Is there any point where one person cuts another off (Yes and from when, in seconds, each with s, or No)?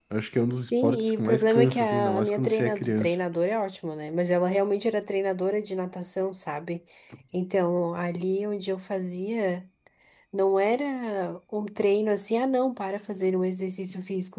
Yes, from 0.8 s